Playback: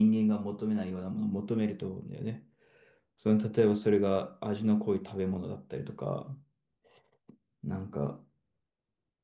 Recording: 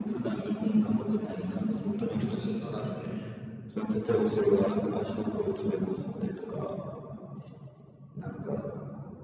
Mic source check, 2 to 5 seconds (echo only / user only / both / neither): both